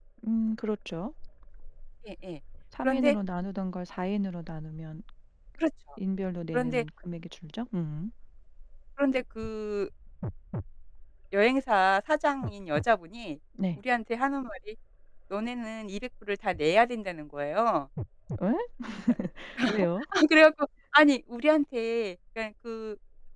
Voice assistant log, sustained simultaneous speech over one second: none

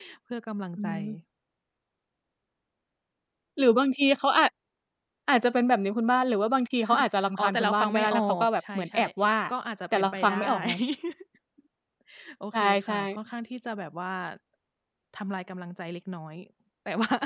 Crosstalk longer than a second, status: present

